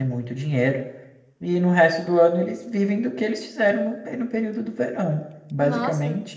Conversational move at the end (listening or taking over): taking over